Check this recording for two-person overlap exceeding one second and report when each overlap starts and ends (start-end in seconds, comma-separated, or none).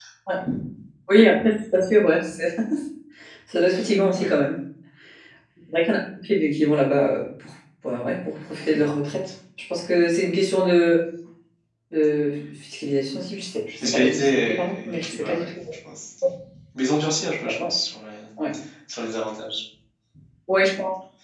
13.8-15.5